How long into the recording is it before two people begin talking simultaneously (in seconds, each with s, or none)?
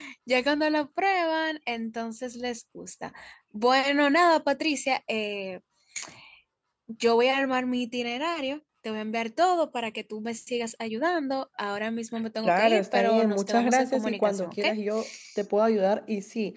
12.4 s